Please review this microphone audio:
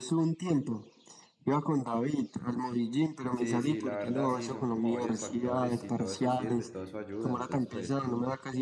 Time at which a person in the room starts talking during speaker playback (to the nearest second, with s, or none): 3 s